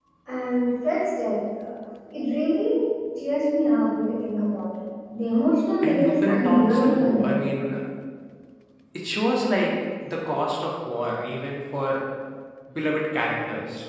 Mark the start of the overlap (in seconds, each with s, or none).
5.8 s